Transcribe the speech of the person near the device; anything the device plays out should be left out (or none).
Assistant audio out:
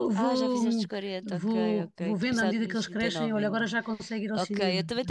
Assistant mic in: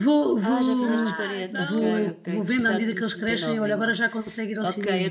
Ah, então.